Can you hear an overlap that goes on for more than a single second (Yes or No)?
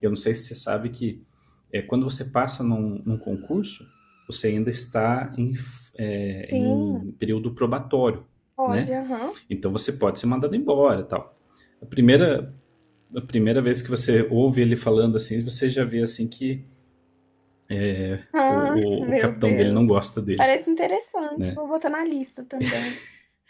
Yes